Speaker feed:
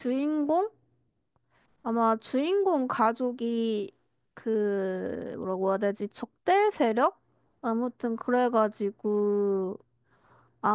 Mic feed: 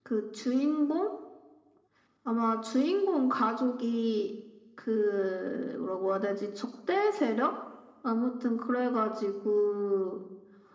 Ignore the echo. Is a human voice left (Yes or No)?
No